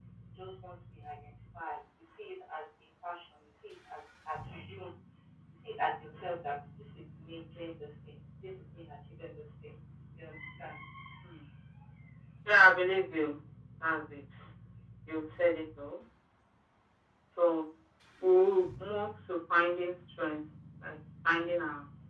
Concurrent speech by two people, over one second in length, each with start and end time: none

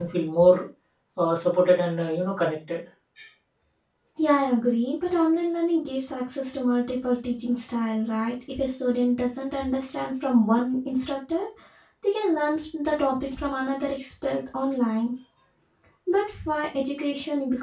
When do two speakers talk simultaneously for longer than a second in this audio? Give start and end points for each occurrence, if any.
none

